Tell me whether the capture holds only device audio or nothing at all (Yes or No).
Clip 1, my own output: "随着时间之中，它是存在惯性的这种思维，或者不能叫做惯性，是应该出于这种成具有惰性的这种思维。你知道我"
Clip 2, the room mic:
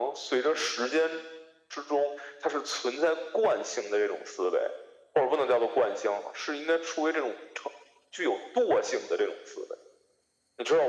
Yes